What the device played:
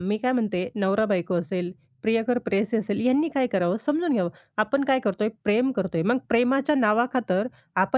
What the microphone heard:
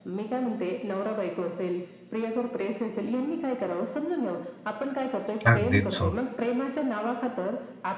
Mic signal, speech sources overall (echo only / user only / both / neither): both